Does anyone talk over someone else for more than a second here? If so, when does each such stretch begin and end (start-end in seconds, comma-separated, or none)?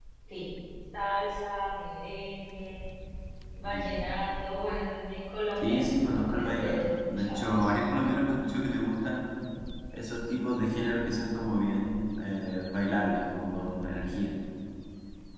5.6-7.7